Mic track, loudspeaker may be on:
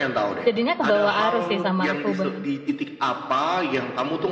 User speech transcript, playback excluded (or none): jadinya kebawa arus sih sama aku, Bang.